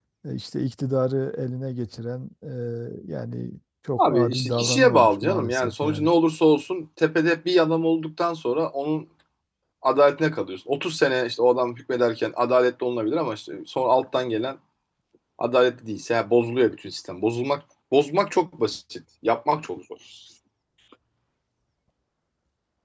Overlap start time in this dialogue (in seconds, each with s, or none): 4.0 s